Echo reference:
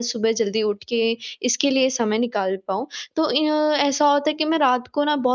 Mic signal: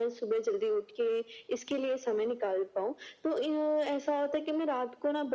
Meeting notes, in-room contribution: none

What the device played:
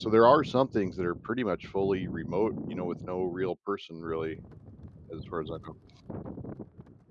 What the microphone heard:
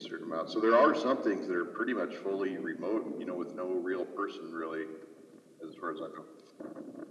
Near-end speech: none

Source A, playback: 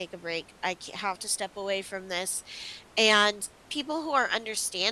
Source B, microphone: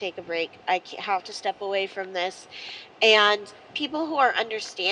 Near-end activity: none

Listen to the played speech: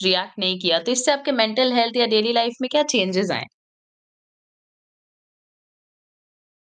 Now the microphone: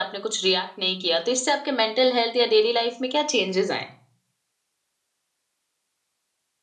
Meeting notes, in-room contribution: none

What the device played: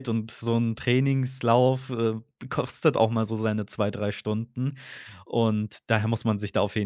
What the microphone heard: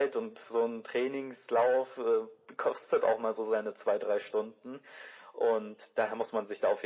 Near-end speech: none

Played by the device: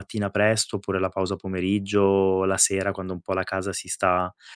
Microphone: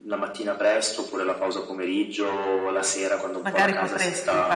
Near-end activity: present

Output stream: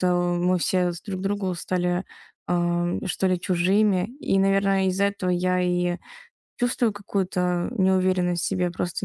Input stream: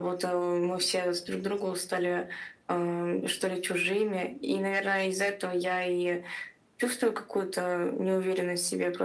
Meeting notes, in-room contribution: none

